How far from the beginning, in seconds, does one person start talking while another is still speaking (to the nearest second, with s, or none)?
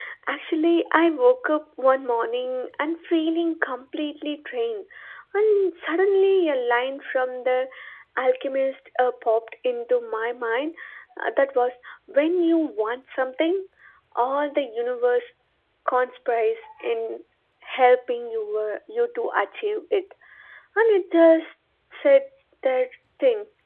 none